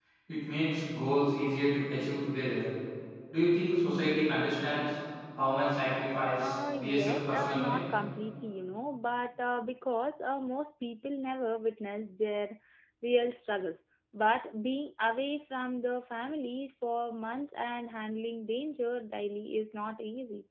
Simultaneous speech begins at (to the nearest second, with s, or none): 6 s